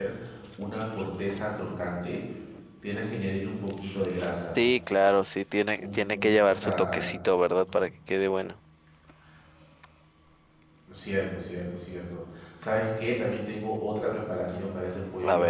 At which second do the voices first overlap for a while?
6 s

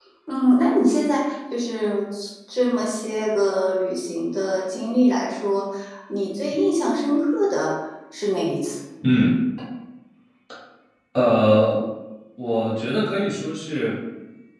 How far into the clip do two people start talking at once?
none

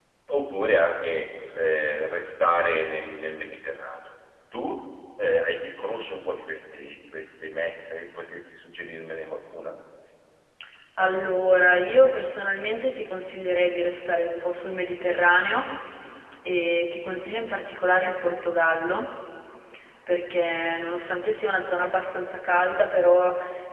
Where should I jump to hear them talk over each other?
none

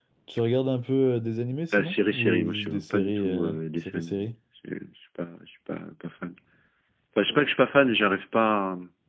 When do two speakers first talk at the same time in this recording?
2 s

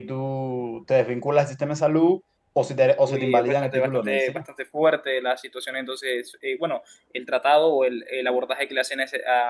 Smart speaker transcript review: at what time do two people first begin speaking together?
3 s

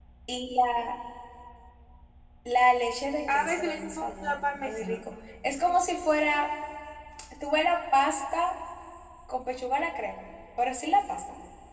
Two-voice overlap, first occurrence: 3 s

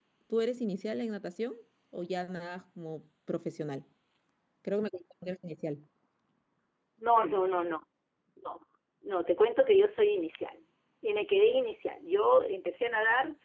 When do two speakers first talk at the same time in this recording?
none

